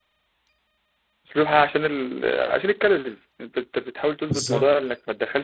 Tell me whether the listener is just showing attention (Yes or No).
Yes